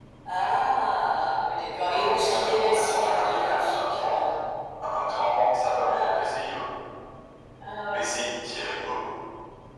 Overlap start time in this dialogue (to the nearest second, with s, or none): 2 s